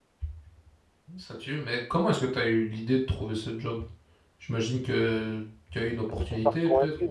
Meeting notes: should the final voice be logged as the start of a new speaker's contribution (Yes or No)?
Yes